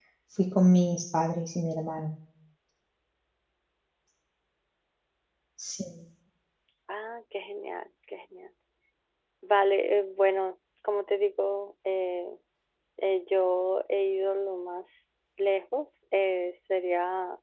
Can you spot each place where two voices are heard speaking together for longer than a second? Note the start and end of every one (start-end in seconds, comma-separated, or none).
none